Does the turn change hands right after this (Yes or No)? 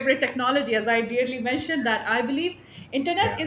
No